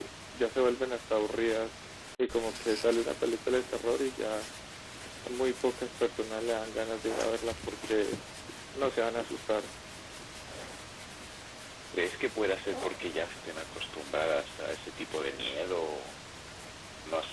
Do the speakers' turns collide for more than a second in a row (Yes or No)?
No